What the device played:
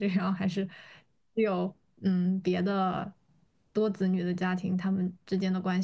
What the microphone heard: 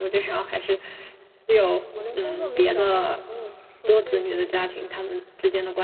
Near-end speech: present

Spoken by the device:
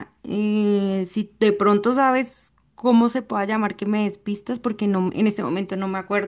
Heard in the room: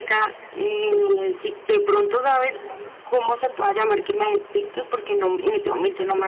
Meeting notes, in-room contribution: none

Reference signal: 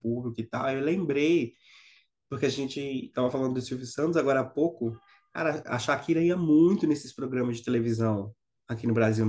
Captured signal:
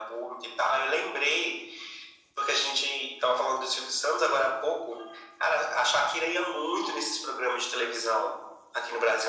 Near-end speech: none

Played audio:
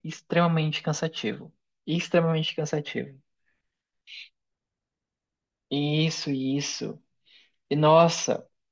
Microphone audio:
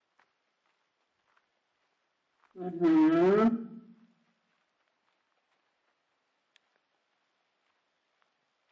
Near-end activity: present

